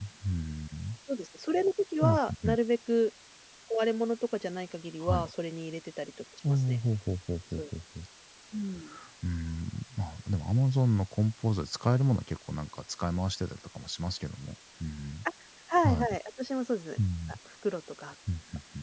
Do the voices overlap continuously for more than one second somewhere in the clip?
No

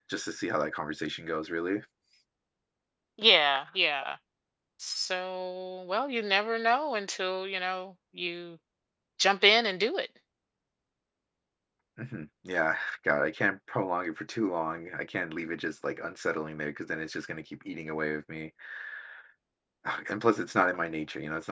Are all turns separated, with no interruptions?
Yes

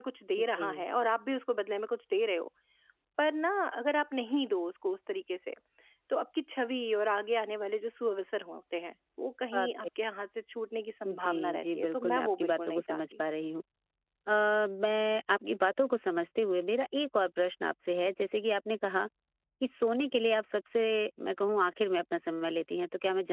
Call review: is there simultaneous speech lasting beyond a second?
Yes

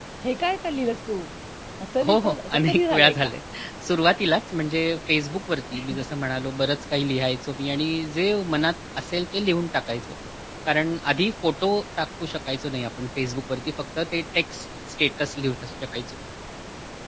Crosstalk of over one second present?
Yes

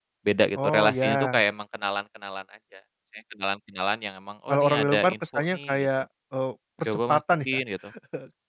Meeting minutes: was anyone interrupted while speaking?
Yes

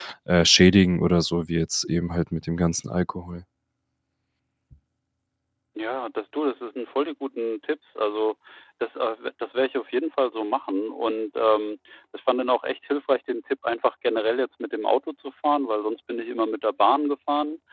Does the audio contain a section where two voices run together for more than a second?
No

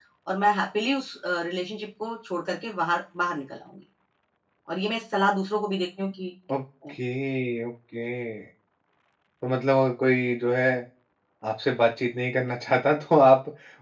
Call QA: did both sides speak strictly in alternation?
Yes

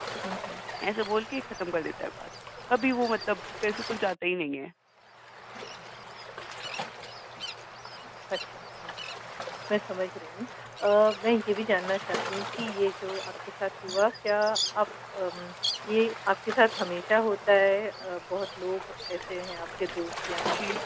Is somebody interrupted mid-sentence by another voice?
No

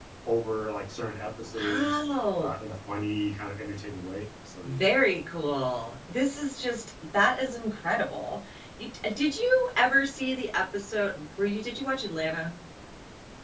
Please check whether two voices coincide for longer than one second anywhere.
No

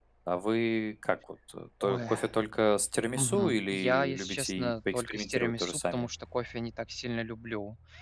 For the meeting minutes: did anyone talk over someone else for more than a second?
Yes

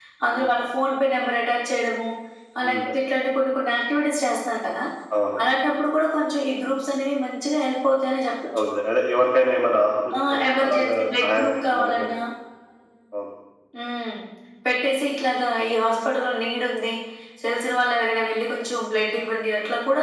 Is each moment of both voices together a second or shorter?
No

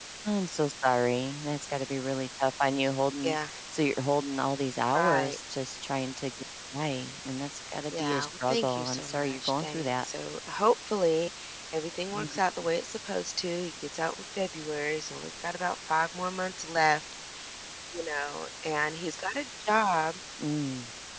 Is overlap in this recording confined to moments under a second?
No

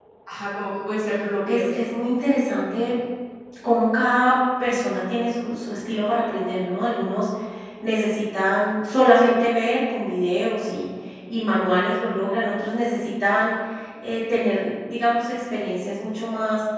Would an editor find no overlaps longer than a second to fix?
Yes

